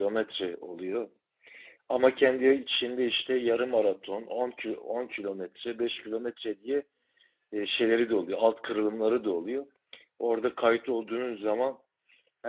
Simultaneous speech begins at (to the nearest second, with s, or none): none